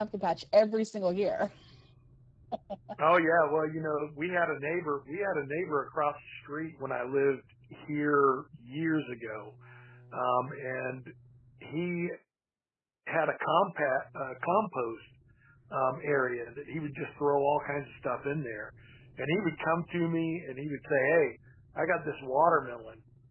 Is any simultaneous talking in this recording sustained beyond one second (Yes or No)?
No